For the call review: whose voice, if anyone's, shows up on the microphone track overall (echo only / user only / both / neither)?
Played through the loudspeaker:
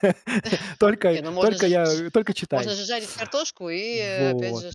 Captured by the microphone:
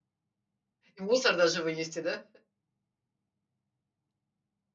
user only